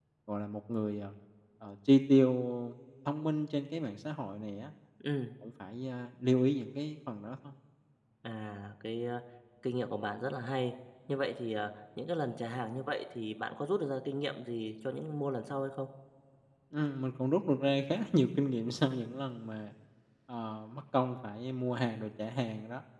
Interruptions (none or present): none